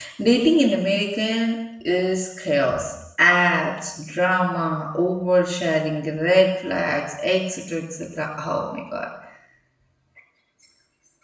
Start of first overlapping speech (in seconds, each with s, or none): none